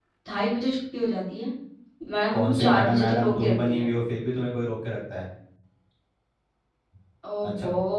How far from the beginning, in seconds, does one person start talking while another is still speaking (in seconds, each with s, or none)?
2.3 s